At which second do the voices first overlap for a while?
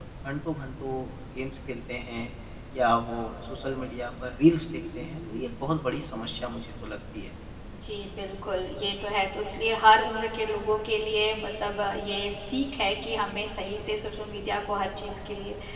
none

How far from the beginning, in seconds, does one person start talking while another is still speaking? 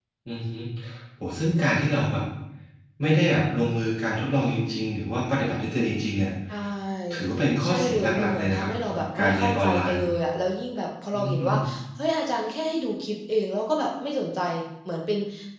8 s

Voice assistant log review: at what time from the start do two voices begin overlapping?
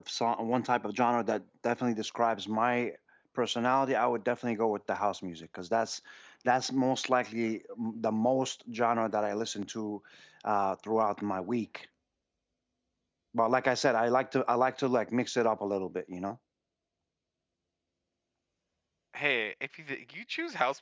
none

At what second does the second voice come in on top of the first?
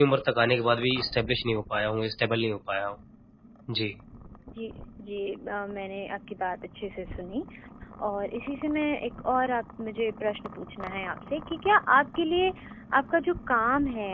none

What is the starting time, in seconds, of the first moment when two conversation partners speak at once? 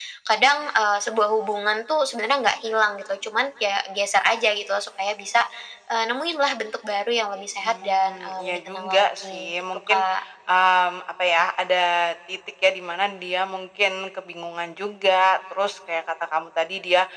8 s

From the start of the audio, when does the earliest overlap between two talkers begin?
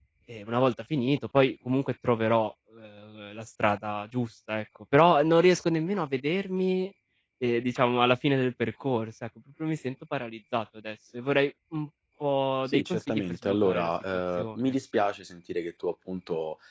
13 s

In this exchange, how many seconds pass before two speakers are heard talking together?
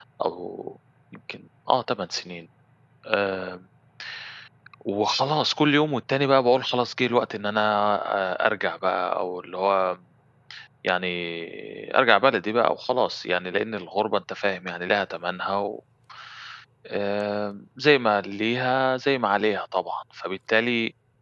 none

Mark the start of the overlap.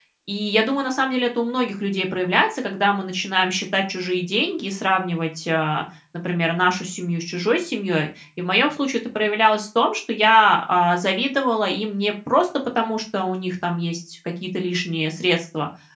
none

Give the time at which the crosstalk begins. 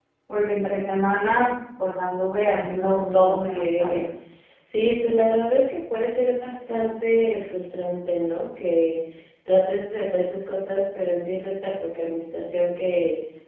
2 s

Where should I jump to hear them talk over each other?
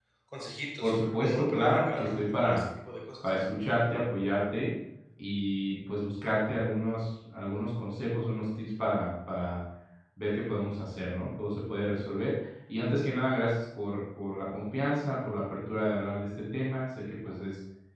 1 s

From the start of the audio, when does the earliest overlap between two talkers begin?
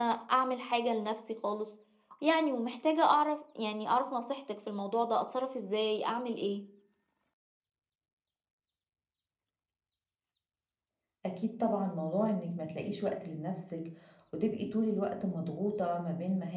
none

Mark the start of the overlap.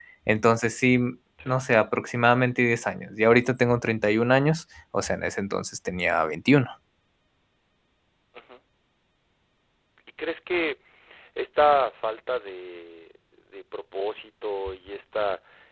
none

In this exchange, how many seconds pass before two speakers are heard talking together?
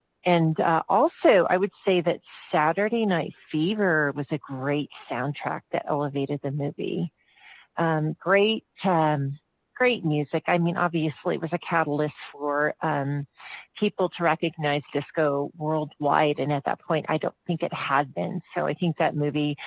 none

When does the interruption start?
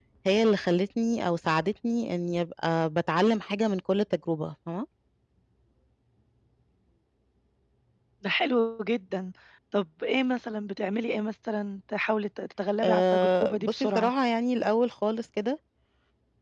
13 s

